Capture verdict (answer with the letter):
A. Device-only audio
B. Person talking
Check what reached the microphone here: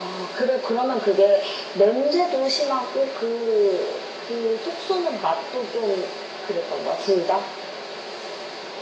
A